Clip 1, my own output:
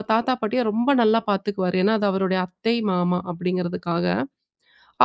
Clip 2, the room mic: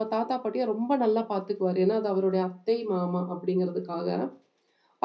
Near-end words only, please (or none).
none